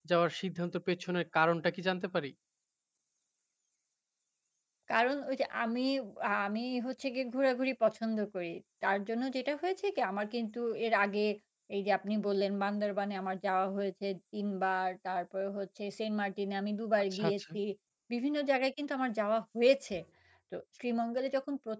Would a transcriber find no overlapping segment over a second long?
Yes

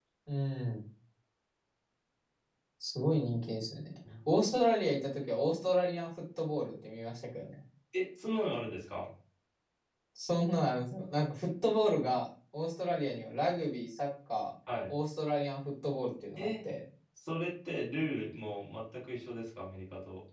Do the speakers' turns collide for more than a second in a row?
No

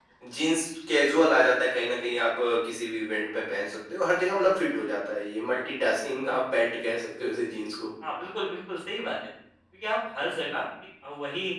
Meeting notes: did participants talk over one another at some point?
No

